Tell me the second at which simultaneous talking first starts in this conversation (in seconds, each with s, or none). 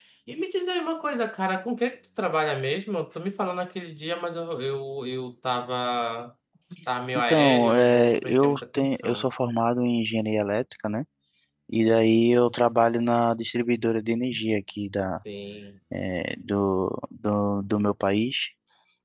7.3 s